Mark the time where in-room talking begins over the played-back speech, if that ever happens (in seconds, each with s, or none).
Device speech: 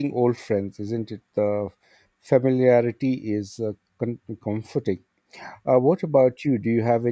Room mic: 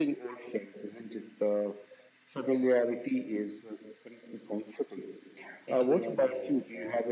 5.7 s